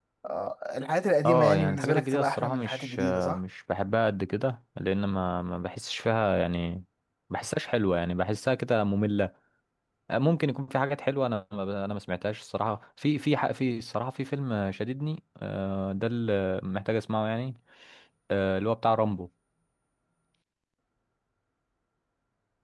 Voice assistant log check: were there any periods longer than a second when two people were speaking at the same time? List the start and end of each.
1.2-3.4

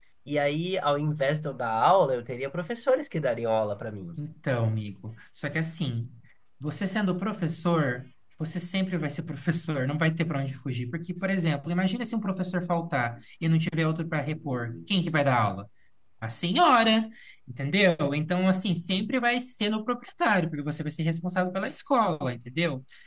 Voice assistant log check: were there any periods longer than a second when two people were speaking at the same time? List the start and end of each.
none

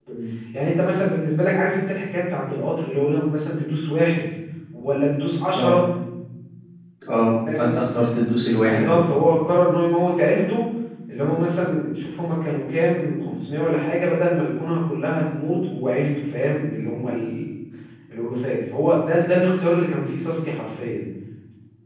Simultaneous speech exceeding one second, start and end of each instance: none

